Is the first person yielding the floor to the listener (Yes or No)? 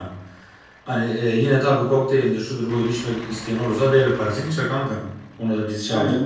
Yes